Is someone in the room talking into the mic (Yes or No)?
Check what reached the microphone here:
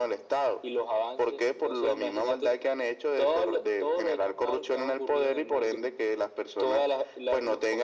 No